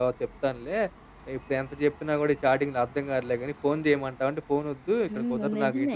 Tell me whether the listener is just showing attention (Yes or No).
No